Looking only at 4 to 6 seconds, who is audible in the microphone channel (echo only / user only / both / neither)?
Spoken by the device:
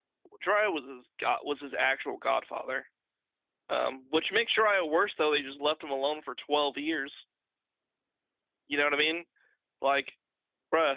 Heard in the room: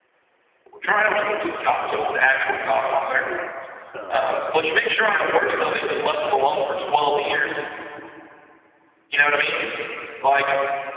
both